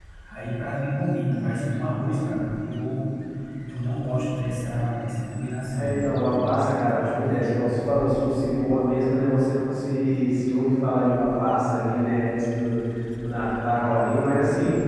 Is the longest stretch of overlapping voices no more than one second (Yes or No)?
No